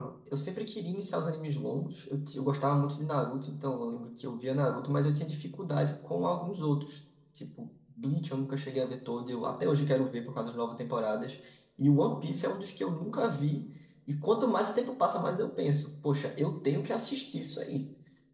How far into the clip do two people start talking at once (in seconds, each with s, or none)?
none